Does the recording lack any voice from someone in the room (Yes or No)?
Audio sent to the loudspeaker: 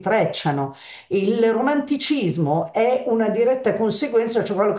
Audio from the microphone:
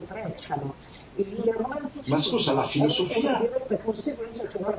No